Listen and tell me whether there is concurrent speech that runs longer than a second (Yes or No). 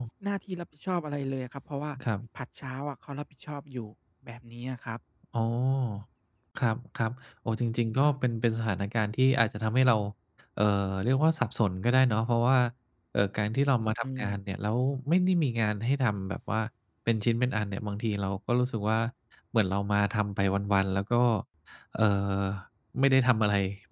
No